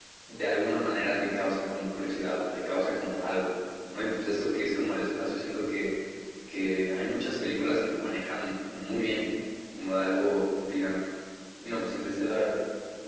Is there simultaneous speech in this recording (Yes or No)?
No